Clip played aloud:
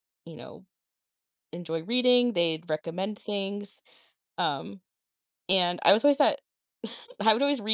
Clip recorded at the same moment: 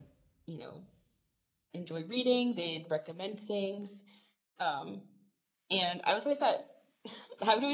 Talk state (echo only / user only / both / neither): echo only